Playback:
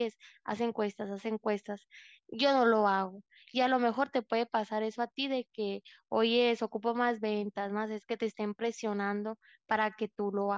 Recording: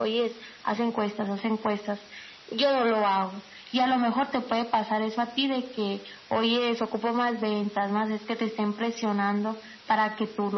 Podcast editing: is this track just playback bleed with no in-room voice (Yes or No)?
Yes